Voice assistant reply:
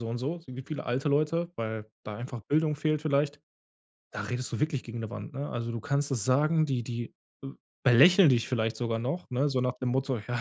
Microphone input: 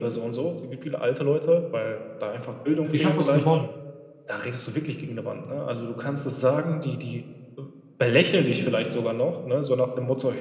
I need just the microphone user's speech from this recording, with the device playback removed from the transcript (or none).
ich habe was gewonnen.“